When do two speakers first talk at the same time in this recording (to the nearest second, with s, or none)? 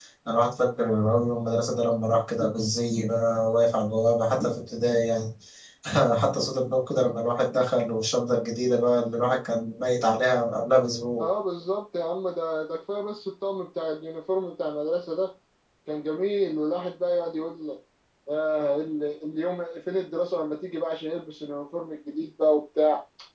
none